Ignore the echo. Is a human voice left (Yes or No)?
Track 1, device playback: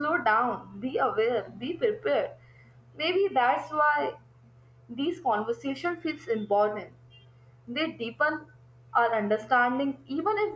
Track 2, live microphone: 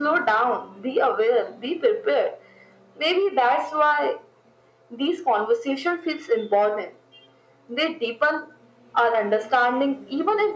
No